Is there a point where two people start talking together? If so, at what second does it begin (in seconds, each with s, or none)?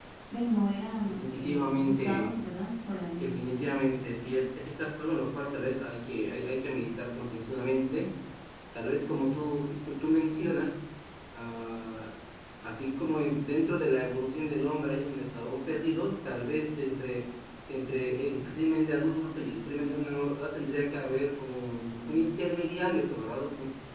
1.1 s